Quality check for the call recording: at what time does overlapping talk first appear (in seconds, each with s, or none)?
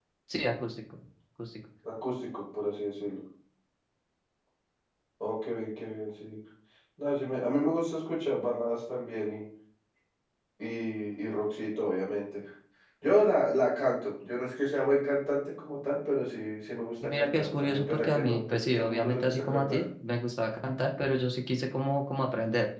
17.0 s